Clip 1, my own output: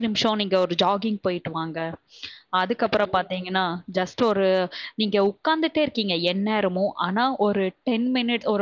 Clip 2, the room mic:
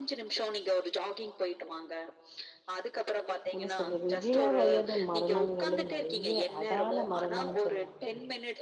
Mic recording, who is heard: both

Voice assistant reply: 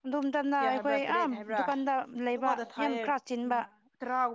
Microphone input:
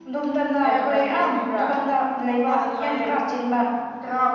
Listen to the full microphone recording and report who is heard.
echo only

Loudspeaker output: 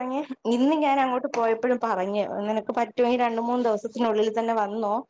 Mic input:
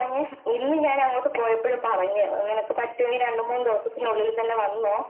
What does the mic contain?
echo only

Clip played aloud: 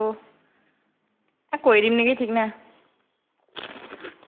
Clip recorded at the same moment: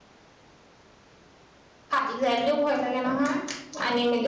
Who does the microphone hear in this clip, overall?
user only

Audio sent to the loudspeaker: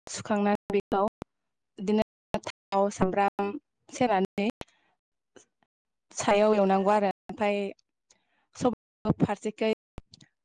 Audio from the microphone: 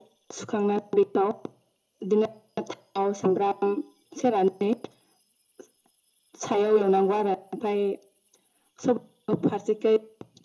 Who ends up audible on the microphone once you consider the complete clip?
echo only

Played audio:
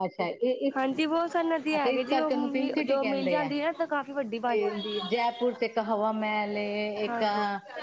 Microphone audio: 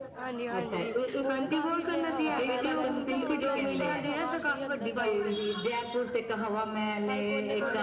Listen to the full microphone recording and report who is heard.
both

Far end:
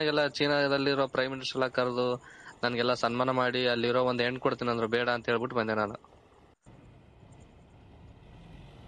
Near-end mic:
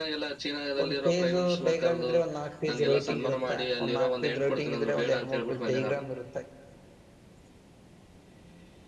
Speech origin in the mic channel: both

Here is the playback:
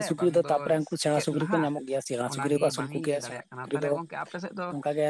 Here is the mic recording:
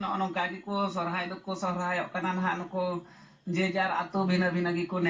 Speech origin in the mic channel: user only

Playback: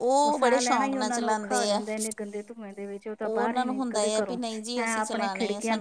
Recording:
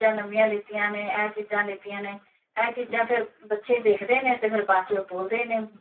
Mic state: user only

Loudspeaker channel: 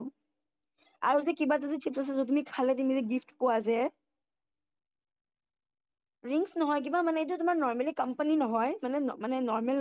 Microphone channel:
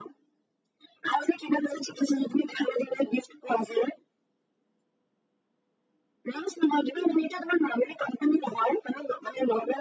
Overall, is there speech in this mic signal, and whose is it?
echo only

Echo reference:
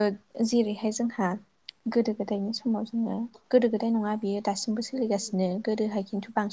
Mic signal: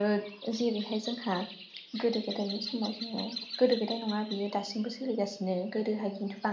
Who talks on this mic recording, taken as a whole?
echo only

